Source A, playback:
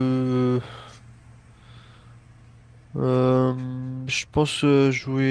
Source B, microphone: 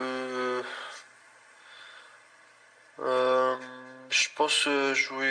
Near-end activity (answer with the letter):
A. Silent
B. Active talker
A